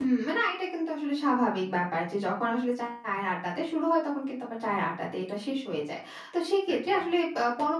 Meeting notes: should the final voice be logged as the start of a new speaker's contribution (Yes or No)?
No